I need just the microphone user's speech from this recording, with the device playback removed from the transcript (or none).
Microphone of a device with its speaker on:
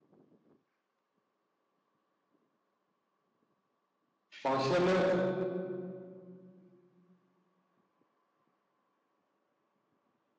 बांसिनानो